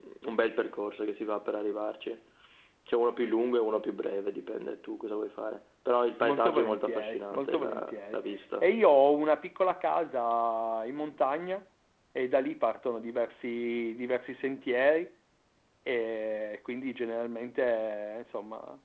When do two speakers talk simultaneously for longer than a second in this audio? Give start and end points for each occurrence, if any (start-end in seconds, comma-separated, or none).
6.2-8.2